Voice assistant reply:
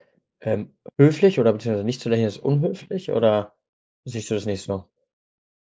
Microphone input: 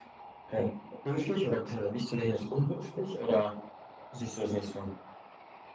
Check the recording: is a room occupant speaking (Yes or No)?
No